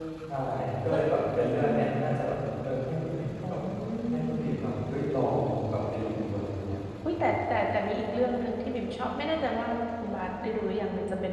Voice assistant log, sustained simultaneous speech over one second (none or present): none